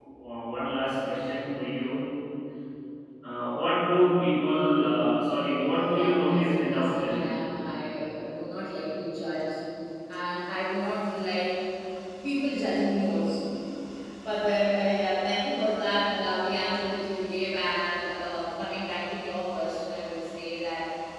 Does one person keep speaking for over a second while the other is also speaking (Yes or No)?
Yes